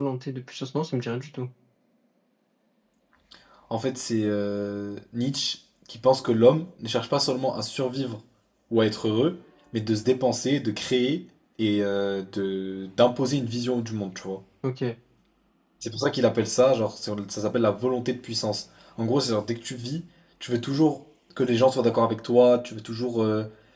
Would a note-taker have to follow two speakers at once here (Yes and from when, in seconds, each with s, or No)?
No